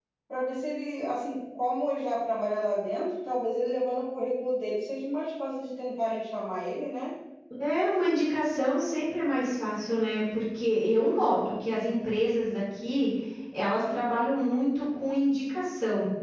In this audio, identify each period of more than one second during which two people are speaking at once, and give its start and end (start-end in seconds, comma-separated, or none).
none